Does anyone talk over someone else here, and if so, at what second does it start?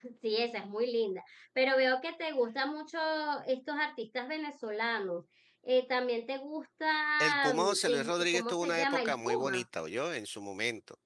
7.2 s

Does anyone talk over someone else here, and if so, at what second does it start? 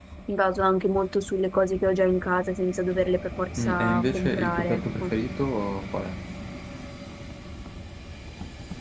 3.6 s

